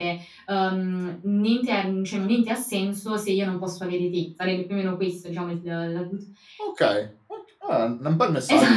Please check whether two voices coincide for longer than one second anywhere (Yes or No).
No